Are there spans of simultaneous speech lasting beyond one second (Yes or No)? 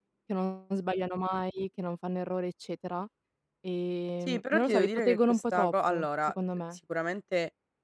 Yes